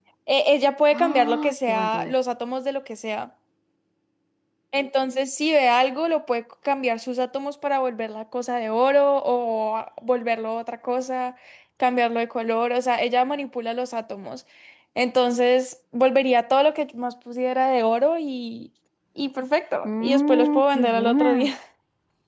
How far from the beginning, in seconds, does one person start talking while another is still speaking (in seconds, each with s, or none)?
0.9 s